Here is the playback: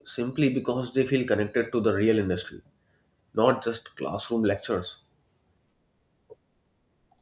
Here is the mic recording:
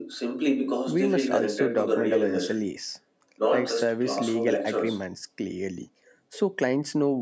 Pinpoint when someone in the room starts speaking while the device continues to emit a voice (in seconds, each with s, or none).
0.8 s